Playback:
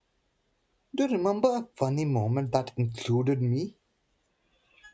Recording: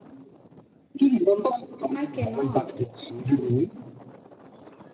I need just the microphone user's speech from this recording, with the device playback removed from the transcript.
I cannot.

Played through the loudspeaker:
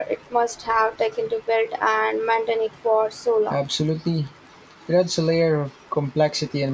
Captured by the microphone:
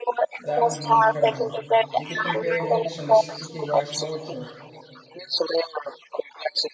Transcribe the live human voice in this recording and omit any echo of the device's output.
That would be incredible. We could compare notes on the sticky rice mortar.

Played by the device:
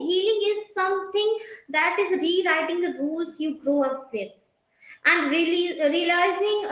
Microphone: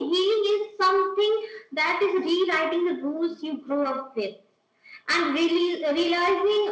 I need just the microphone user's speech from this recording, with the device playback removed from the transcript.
none

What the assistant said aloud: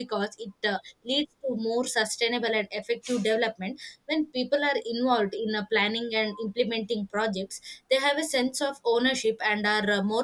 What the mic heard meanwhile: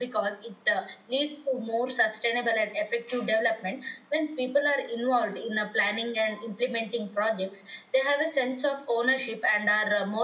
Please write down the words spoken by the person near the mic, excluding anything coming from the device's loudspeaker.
none

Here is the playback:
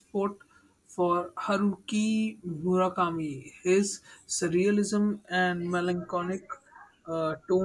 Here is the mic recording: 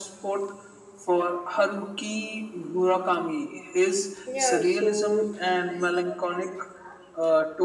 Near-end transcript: Yeah. So

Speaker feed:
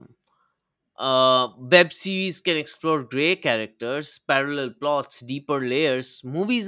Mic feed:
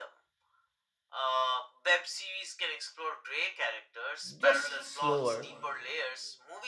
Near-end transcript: just slower,

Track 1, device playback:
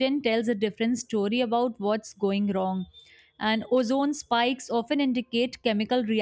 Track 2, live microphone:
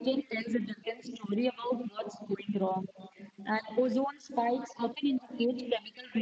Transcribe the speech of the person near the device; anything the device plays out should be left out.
none

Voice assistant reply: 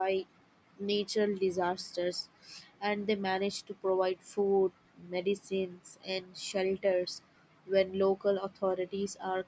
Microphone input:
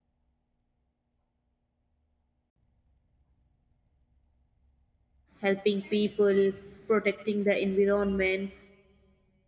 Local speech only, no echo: helping people, protecting the environment,

